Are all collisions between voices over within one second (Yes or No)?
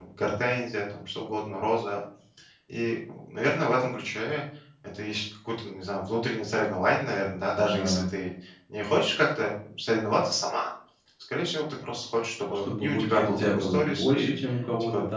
No